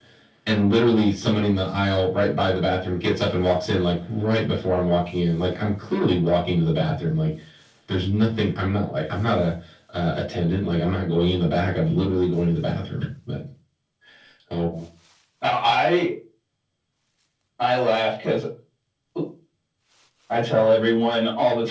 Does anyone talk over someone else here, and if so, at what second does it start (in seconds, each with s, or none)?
none